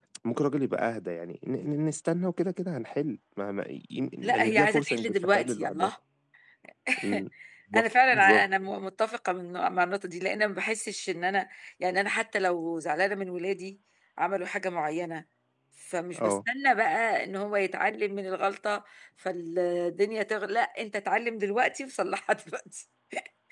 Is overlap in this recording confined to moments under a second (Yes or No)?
No